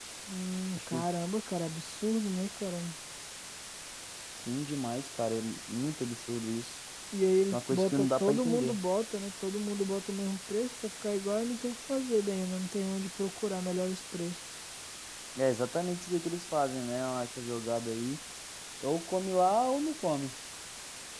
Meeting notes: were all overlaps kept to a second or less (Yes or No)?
No